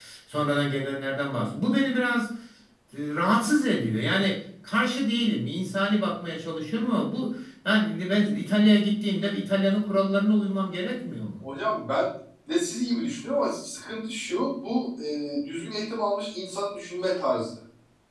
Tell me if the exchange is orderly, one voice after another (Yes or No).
Yes